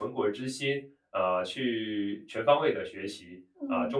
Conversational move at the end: listening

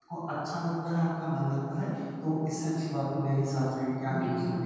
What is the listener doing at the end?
taking over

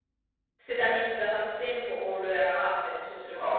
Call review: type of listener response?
taking over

